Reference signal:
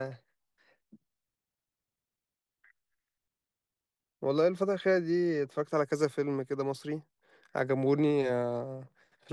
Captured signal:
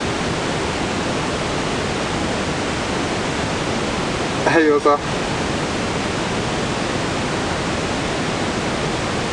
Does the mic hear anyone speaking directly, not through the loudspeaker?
Yes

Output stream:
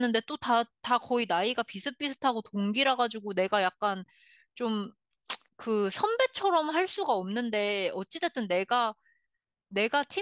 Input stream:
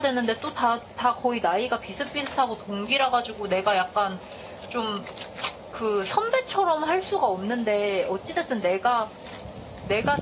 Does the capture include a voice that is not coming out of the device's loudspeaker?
No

